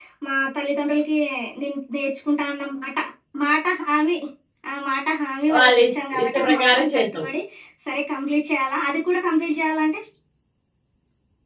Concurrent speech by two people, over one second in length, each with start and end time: 5.6-7.2

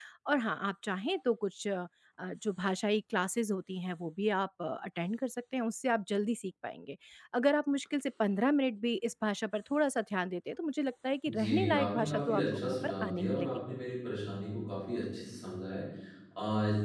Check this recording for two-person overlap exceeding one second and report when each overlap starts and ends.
11.3-13.6

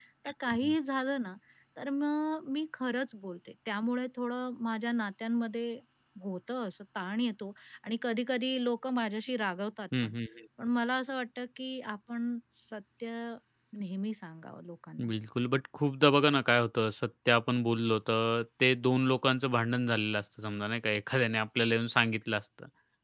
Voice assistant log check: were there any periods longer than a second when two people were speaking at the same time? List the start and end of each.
none

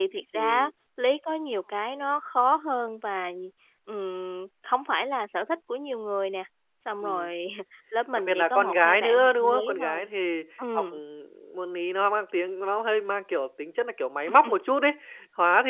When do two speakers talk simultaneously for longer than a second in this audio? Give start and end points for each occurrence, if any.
8.2-10.1

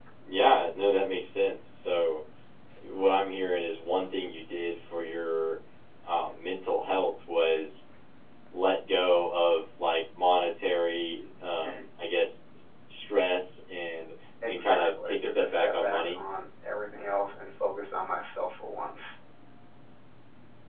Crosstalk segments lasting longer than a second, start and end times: 14.4-16.2

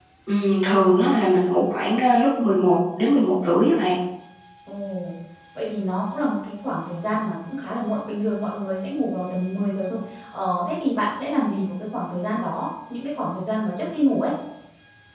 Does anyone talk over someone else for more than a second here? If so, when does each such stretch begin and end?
none

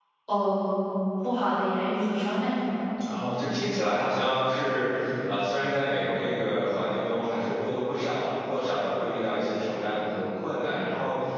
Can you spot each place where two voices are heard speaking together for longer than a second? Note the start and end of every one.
none

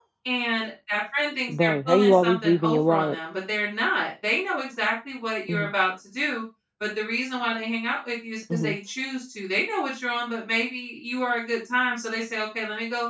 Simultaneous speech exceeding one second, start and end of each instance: 1.5-3.2

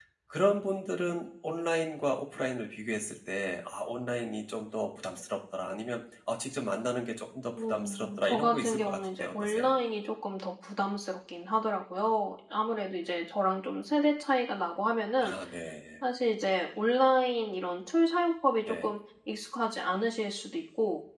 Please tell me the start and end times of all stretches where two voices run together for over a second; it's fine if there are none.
7.5-9.7

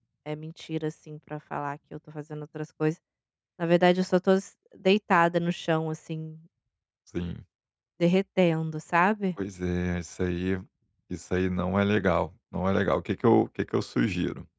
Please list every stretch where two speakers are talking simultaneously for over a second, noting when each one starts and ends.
none

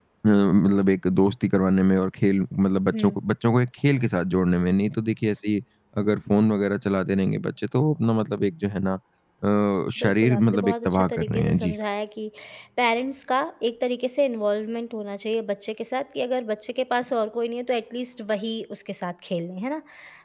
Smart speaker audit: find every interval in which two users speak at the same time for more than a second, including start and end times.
10.0-11.8

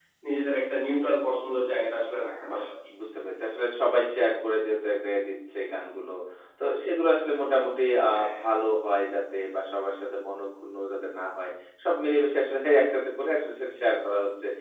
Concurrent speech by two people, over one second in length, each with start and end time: none

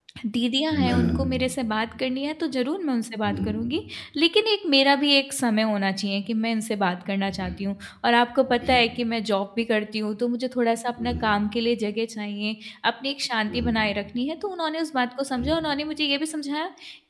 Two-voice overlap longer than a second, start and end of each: none

